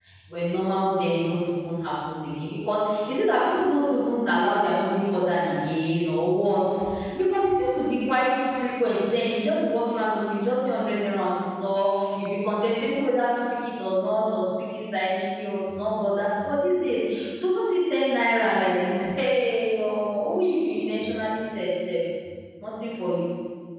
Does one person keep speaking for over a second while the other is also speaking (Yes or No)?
No